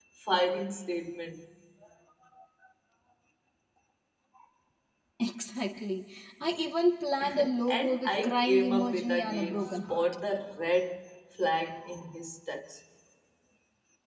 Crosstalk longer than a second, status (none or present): present